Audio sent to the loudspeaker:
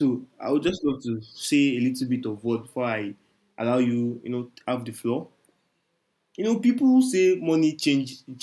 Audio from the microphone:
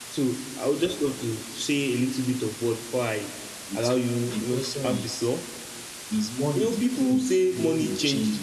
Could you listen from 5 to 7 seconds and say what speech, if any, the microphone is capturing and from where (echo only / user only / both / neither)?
both